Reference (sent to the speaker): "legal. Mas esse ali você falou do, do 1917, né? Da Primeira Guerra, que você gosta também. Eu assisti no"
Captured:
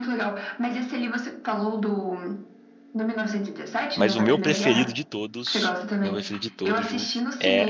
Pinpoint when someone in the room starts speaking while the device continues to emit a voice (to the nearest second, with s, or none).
4 s